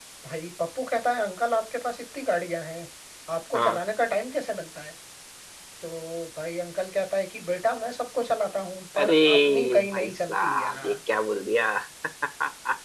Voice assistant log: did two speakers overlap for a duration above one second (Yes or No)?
Yes